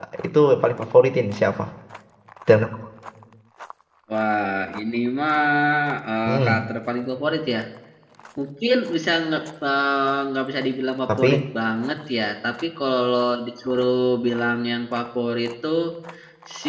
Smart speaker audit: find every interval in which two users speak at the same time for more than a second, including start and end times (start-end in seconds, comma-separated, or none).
none